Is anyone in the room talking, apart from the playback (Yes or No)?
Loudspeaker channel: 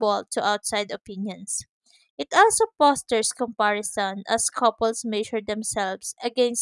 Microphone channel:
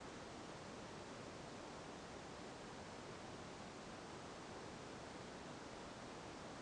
No